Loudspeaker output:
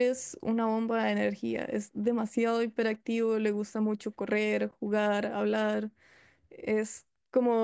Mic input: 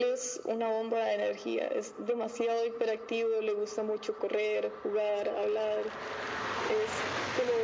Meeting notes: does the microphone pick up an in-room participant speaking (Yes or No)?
No